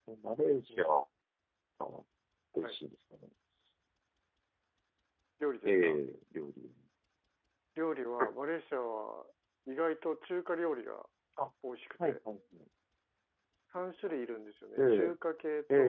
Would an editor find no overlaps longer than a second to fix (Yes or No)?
Yes